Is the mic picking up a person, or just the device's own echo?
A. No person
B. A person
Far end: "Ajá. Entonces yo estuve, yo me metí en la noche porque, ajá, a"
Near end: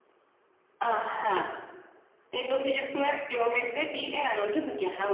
A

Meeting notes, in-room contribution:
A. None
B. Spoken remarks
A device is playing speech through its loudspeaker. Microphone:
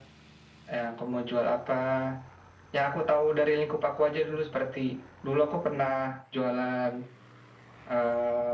A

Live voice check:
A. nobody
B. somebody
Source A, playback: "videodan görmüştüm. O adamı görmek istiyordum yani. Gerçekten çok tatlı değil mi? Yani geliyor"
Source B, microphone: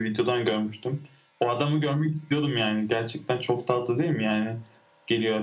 A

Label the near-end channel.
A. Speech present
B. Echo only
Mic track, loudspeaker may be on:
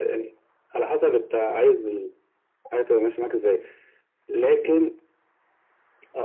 B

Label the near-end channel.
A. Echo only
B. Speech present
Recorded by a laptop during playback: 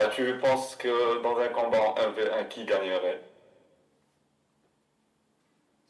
A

